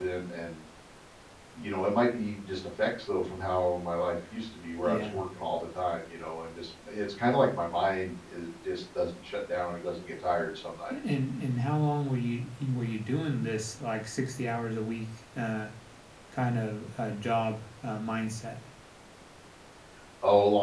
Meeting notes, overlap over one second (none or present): none